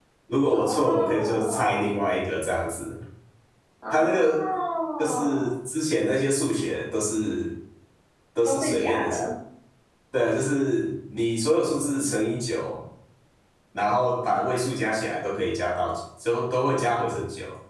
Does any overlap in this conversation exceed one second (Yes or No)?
Yes